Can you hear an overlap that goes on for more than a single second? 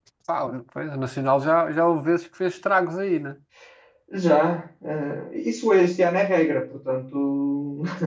No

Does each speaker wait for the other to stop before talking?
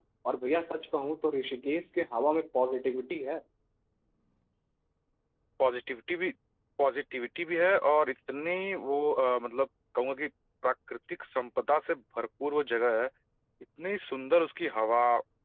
Yes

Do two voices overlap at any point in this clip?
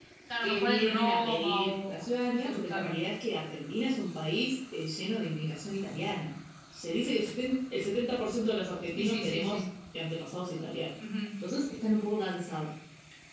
Yes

